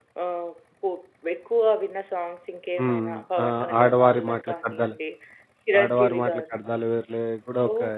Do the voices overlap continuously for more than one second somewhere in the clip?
Yes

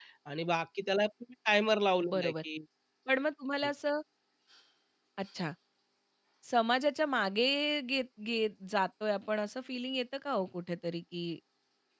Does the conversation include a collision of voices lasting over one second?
No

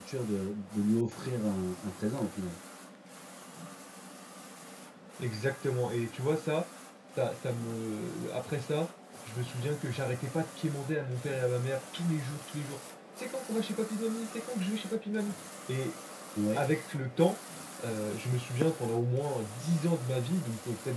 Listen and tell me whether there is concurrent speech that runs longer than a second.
No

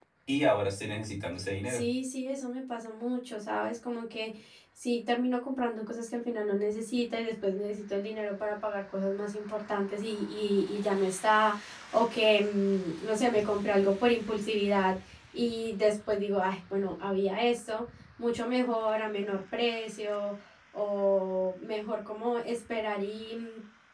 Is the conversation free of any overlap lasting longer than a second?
Yes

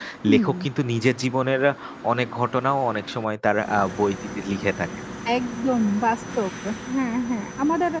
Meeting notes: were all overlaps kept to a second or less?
Yes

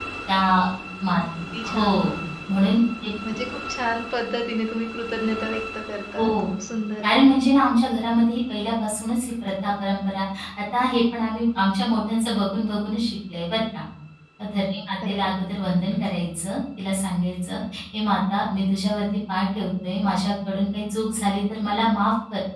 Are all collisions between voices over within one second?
Yes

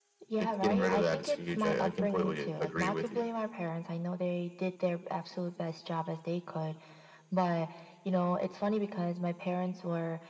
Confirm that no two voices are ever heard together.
No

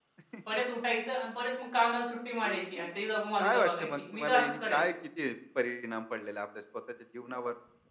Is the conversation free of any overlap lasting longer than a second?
No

